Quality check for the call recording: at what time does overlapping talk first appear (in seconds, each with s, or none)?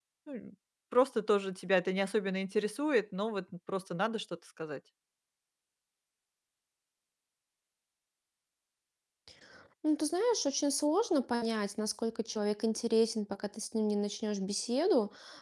none